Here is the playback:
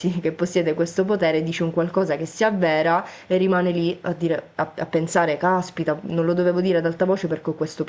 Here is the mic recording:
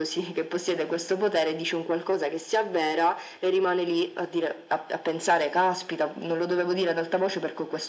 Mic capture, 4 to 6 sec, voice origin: echo only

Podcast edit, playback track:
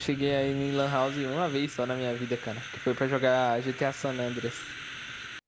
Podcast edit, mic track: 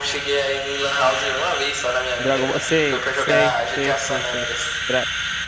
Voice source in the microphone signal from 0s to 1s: echo only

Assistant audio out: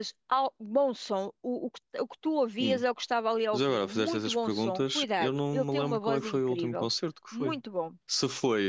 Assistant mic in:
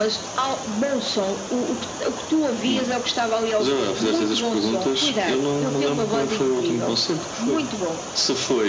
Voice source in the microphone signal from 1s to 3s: echo only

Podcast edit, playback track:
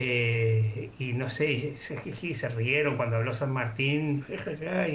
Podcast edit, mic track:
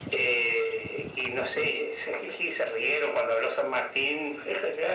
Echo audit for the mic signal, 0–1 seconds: echo only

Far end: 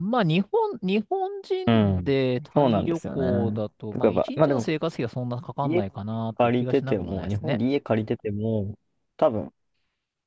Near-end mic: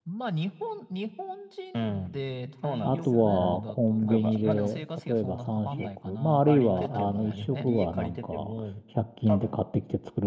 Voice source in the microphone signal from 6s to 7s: both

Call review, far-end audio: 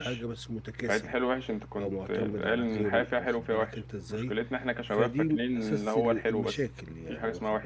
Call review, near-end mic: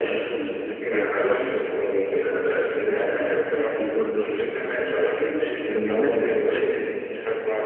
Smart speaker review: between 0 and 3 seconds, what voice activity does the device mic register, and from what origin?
both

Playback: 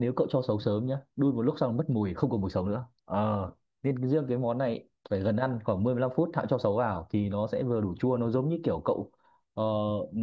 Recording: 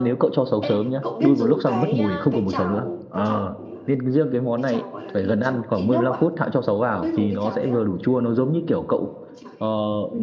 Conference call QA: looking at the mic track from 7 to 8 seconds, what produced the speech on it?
both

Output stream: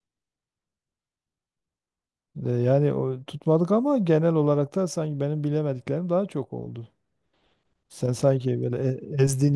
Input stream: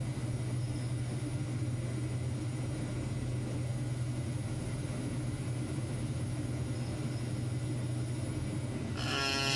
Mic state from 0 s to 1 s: neither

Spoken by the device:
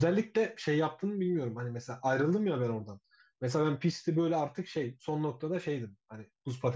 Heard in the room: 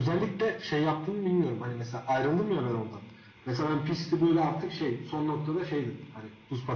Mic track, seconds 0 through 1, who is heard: echo only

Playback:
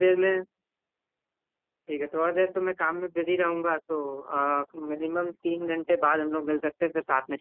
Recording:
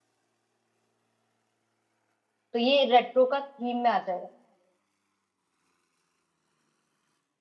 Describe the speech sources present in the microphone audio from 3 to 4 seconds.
user only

